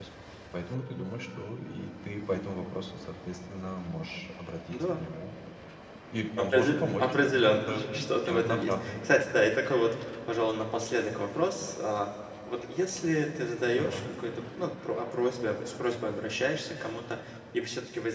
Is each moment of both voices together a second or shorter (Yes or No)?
No